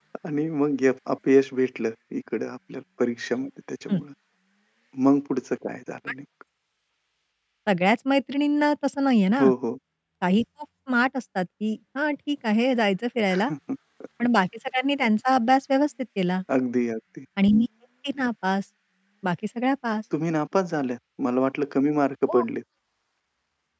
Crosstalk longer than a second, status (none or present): none